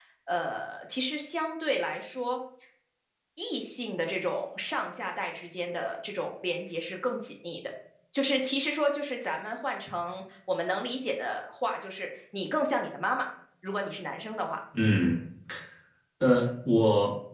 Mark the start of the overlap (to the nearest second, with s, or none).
none